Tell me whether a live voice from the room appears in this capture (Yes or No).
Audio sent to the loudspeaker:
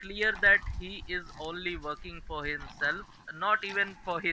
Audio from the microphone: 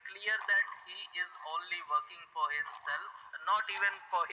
No